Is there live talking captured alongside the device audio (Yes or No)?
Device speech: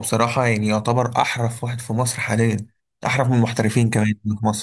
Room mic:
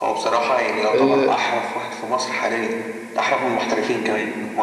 Yes